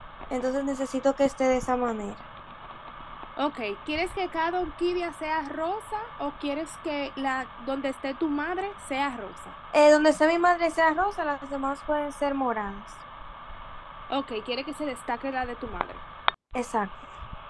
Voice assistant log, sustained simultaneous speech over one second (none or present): none